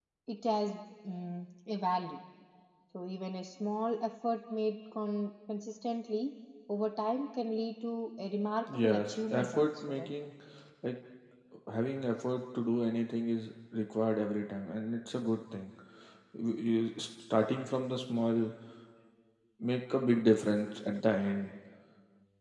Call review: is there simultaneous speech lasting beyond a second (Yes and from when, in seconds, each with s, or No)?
Yes, from 8.7 s